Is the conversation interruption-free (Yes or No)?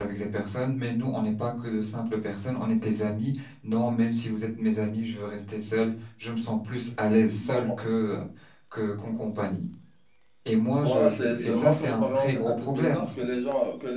No